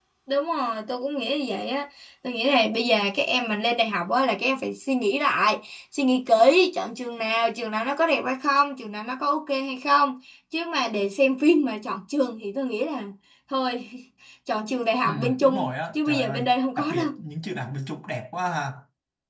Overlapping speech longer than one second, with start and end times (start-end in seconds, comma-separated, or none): 15.0-17.1